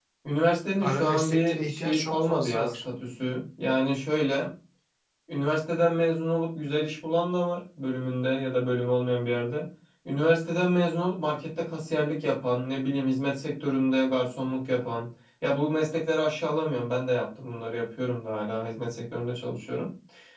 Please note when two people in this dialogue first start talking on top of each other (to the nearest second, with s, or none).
1 s